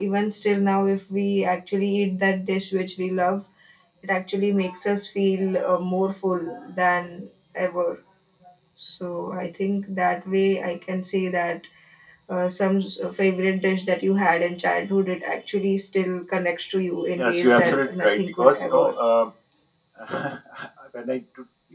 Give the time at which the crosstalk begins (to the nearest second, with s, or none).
17 s